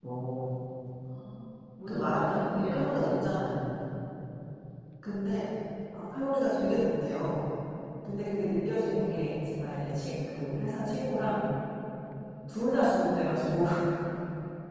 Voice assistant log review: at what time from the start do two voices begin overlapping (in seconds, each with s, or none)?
1.9 s